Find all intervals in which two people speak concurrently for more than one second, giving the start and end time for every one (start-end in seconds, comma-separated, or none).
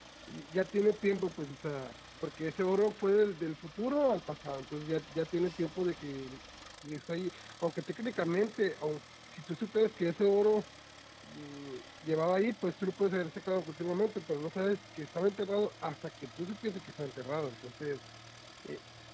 none